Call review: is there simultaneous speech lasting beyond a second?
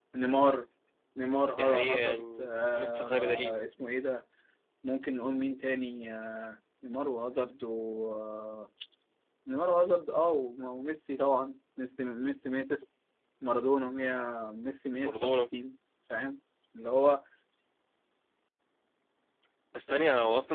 Yes, from 1.6 s

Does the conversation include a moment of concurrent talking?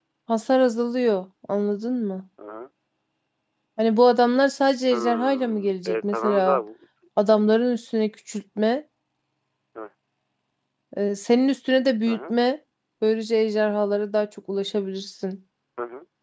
Yes, from 4.9 s

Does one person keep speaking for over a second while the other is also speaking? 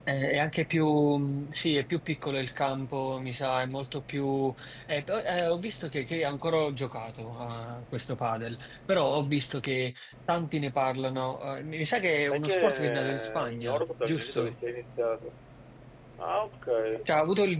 Yes, from 12.2 s

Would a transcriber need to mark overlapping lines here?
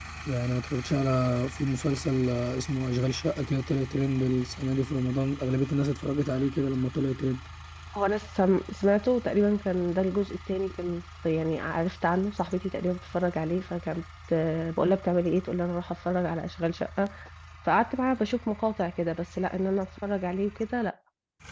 No

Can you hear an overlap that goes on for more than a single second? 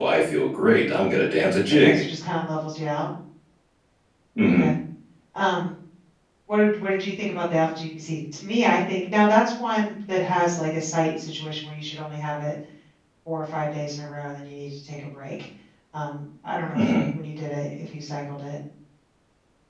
No

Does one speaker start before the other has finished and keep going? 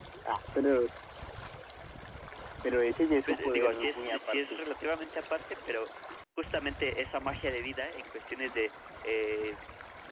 Yes, from 3.3 s

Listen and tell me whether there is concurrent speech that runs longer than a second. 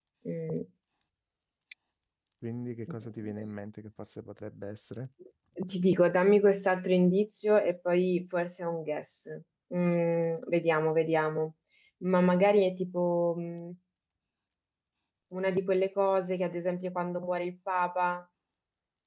No

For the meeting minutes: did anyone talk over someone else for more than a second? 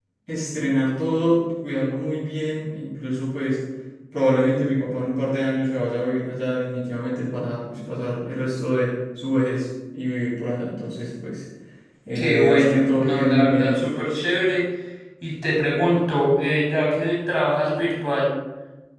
Yes, from 12.2 s

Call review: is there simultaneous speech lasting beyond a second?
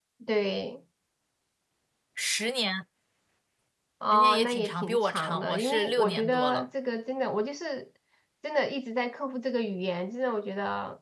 Yes, from 4.1 s

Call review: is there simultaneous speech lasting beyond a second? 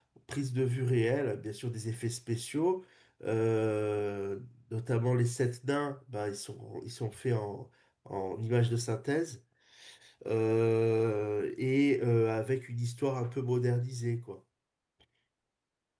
No

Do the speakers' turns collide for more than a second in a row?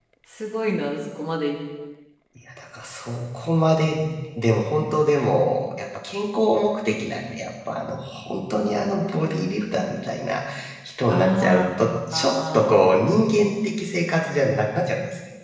Yes, from 11.1 s

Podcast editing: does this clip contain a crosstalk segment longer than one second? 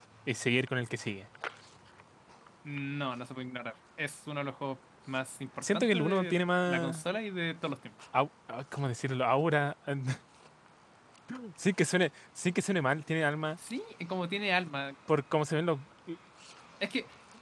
Yes, from 5.6 s

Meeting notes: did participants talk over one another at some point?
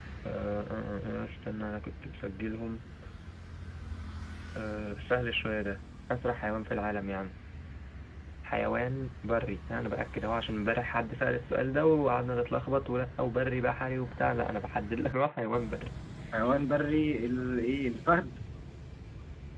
No

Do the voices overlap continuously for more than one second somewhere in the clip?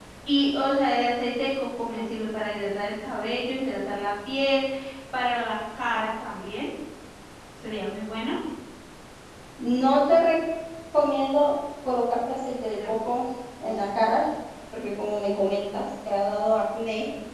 No

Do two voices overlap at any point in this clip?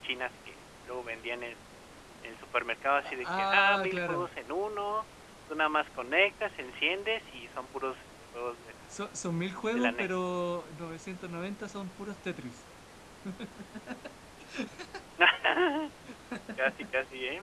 Yes, from 3.0 s

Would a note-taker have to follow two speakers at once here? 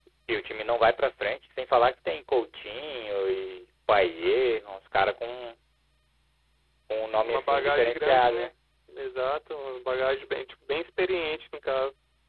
Yes, from 7.2 s

